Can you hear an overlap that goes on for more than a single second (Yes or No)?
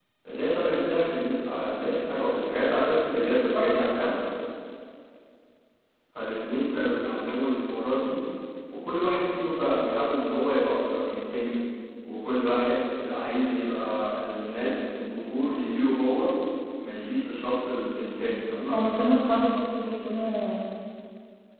No